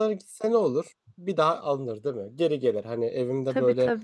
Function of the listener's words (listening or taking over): listening